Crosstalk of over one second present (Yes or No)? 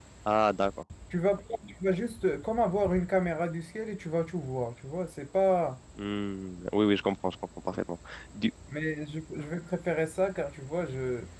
No